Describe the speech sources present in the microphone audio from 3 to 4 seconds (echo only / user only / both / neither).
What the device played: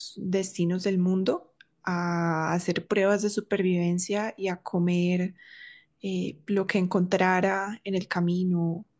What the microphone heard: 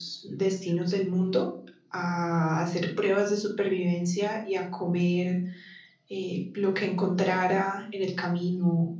echo only